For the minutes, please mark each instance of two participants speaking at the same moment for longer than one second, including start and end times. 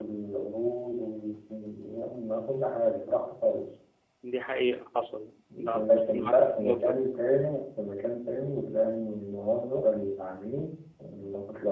5.7-7.0

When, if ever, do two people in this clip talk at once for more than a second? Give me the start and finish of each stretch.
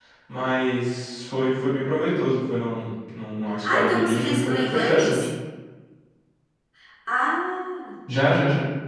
3.6-5.2

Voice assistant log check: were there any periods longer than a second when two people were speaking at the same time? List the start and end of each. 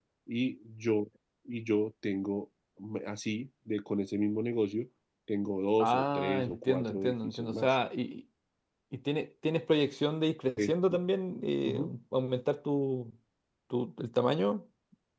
5.8-7.8

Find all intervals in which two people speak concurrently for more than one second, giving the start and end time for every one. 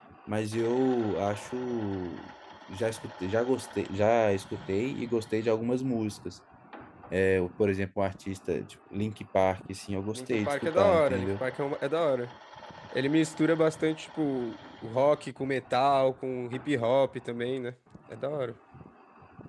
10.2-11.4

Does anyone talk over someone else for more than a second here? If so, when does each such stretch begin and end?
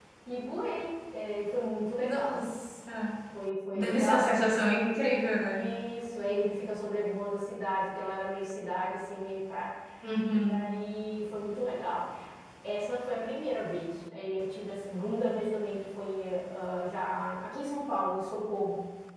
3.7-5.0

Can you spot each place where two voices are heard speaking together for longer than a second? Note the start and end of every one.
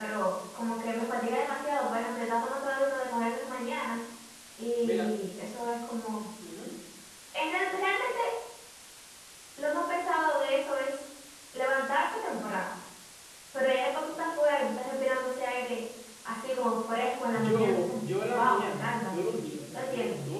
17.3-19.2

